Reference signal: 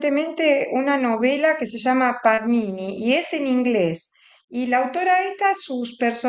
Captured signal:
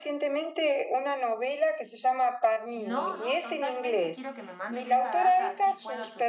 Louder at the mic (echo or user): echo